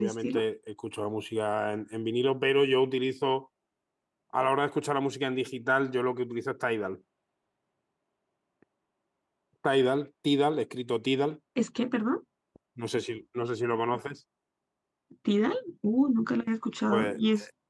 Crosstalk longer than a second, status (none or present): none